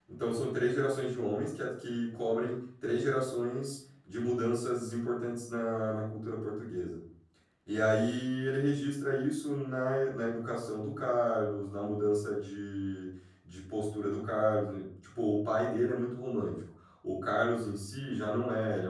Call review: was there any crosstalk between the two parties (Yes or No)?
No